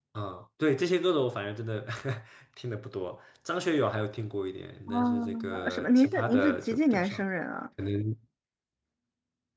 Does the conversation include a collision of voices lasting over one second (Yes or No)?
Yes